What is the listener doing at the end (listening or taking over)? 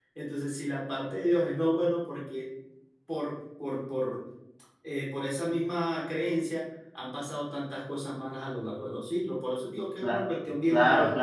taking over